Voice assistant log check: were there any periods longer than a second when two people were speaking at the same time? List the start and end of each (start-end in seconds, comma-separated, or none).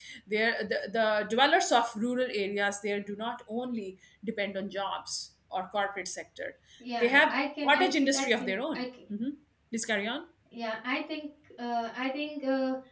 7.0-8.8